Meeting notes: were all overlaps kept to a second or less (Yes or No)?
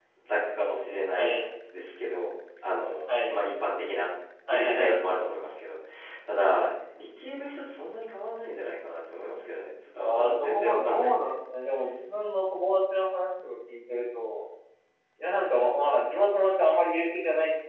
No